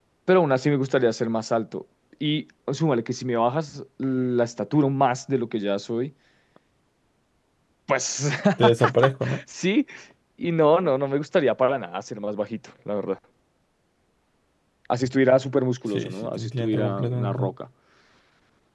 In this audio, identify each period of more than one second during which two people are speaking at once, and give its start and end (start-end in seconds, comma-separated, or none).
15.9-17.5